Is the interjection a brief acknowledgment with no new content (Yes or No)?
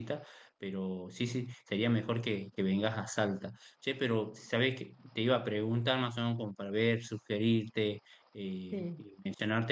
Yes